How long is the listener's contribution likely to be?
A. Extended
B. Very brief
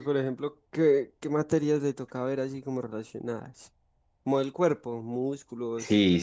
A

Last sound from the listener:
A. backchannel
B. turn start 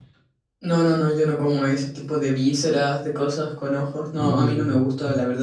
A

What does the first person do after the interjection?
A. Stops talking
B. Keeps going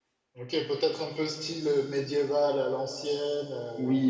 A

